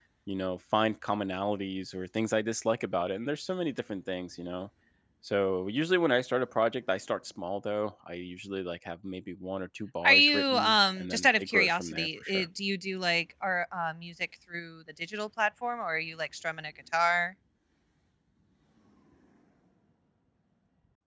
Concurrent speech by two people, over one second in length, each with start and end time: 10.1-12.5

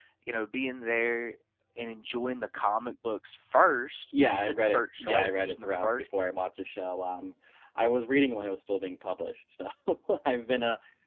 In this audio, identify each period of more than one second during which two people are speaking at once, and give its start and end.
4.2-6.1

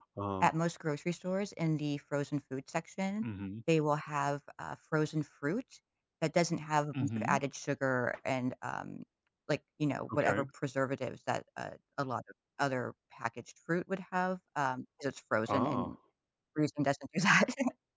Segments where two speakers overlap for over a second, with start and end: none

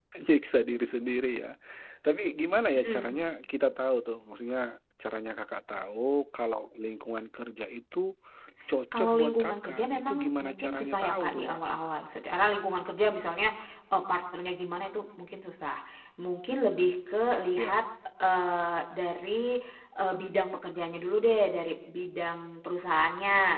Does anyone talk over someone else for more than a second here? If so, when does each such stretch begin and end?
9.0-11.6

